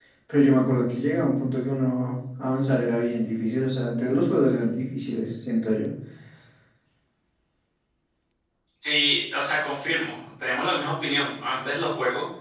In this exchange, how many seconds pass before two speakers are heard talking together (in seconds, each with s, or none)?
none